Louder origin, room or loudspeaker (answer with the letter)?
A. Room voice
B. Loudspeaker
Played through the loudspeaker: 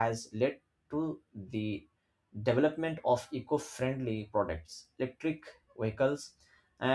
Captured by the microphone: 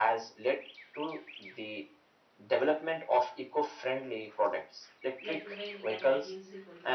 B